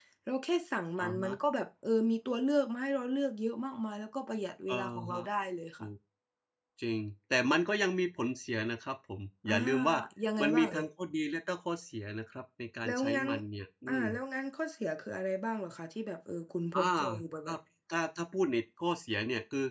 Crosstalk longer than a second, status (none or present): none